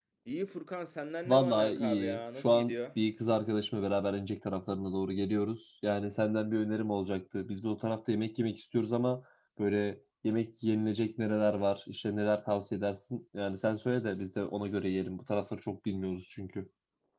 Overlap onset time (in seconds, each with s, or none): 1.2 s